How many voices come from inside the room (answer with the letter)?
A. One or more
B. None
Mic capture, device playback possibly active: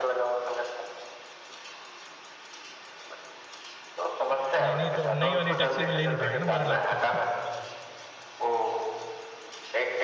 A